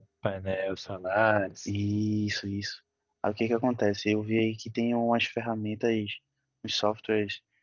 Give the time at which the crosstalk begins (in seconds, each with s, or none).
none